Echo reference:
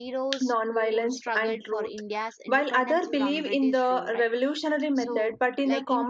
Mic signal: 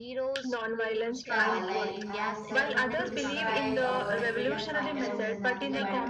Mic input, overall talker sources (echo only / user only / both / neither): both